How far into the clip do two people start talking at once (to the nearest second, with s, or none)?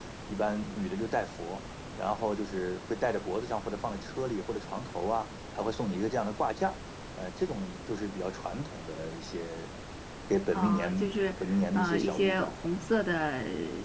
11 s